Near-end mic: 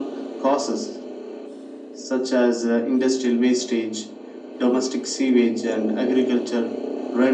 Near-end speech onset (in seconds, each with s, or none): none